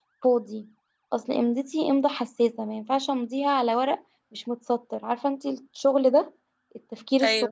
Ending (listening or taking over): listening